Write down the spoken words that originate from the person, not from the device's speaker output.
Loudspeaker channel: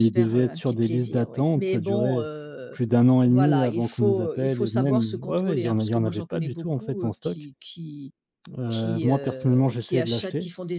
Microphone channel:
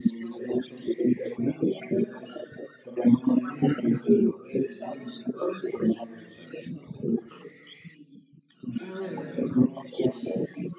Ah ouais, ouais, ouais.

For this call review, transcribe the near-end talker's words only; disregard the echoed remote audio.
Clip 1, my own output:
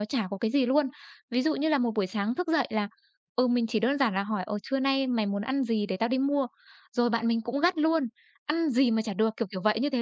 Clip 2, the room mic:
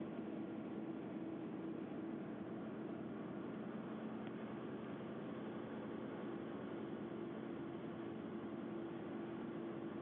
none

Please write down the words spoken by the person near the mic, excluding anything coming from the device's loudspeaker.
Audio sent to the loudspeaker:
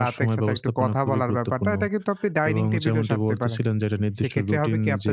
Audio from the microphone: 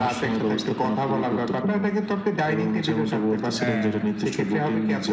হ্যাঁ,

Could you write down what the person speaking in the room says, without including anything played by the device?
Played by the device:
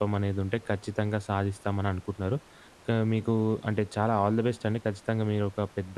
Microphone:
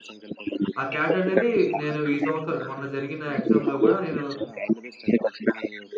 ఆ క్యాట్ అనేది నేను ఈ సంవత్సరం మొన్న జరిగిన ఎగ్జామ్‌లో గూడా నేను

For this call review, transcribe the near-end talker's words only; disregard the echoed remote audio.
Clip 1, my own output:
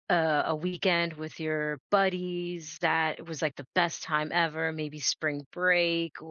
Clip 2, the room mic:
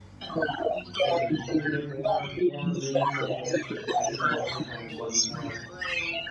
Yeah, you tend to get more more meaningful connections. I think a lot of times when we have

